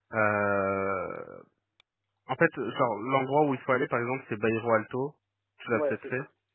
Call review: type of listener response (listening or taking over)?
taking over